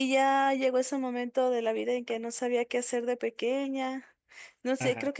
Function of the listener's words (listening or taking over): listening